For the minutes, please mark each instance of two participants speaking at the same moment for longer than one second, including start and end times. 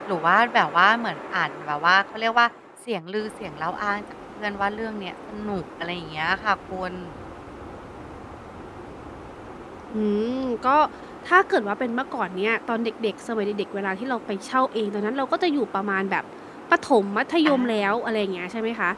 none

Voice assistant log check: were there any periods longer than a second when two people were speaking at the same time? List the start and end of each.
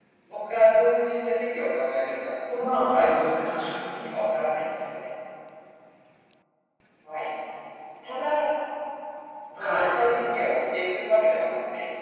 2.6-3.8

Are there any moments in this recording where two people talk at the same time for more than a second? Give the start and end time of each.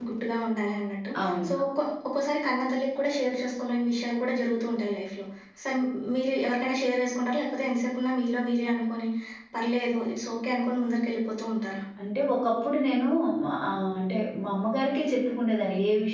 none

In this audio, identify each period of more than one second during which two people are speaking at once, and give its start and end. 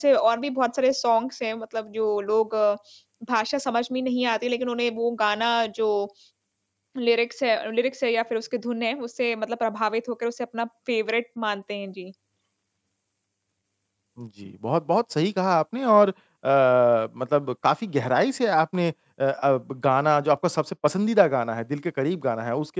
none

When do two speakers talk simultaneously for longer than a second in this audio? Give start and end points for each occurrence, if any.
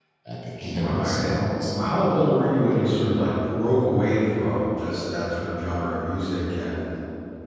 0.6-1.9

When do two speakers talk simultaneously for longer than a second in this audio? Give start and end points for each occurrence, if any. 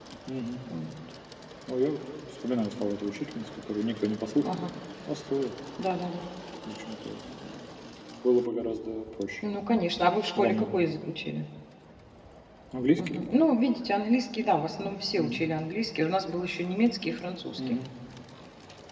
none

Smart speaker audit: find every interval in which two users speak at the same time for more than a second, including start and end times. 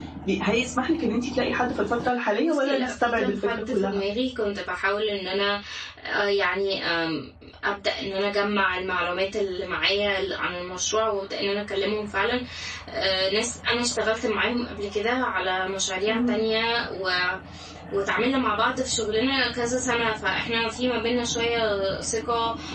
2.4-4.0

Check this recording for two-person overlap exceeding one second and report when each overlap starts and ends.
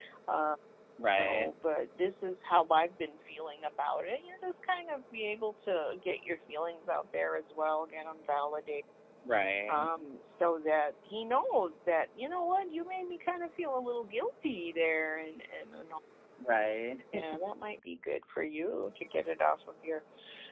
none

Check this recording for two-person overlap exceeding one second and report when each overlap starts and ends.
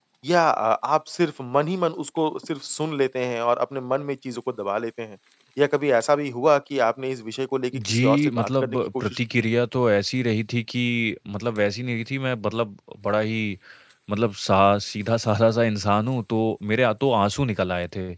7.7-9.2

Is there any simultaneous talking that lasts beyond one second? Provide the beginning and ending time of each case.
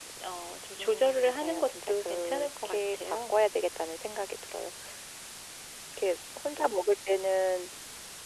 0.8-3.4

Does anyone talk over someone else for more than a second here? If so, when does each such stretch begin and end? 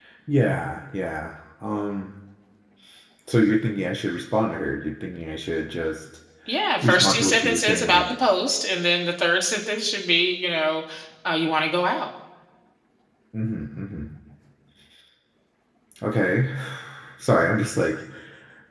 6.8-8.0

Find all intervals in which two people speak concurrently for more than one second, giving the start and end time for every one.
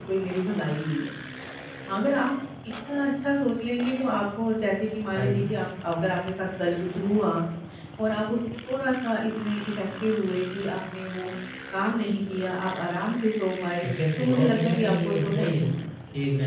13.8-15.6

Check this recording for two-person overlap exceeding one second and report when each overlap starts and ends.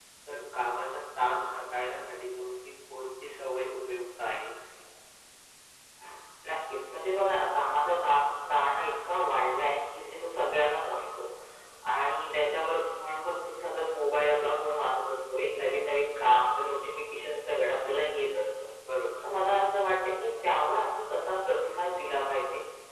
none

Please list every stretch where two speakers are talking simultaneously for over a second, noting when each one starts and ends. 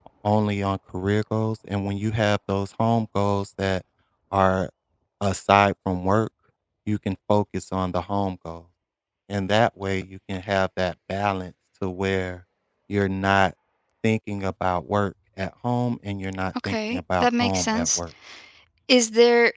16.6-18.0

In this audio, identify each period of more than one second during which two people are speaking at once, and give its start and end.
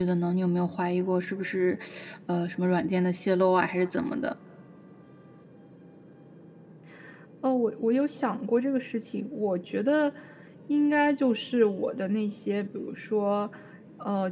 none

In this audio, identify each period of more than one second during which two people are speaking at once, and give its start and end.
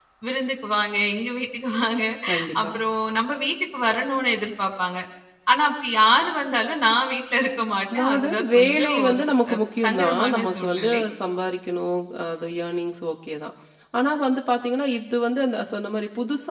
7.9-11.0

